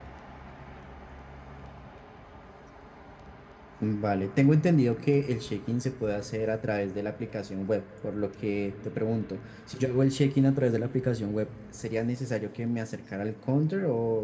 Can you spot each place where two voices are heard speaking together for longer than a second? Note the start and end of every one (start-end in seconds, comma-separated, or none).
none